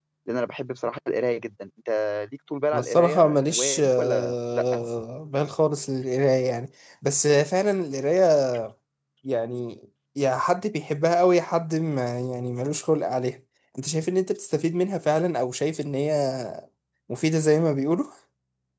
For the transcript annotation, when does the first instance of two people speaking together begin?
2.7 s

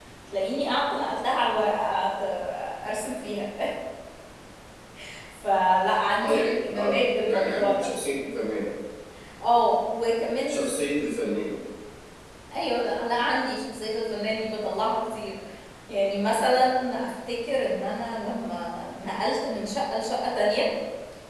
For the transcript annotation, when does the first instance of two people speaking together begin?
6.2 s

